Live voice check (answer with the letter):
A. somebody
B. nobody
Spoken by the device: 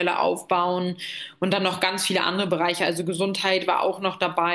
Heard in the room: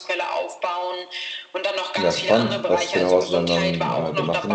A